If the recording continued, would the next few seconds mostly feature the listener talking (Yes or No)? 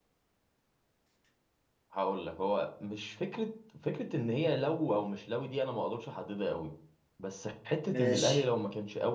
No